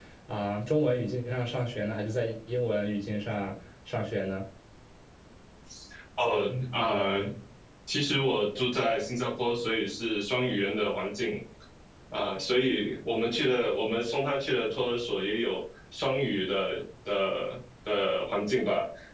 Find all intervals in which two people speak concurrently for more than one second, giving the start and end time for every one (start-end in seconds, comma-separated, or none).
none